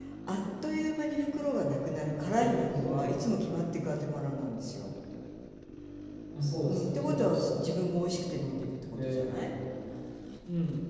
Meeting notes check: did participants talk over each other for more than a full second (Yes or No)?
Yes